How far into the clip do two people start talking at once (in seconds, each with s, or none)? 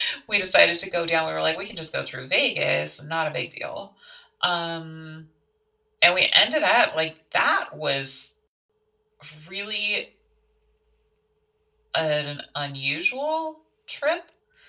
none